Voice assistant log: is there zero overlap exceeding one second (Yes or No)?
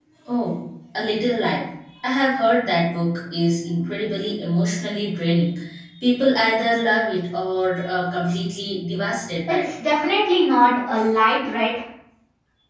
Yes